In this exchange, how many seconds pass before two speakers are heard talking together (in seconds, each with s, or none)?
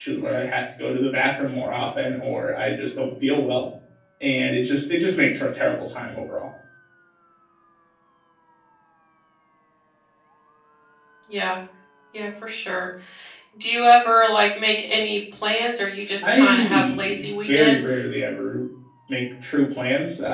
16.2 s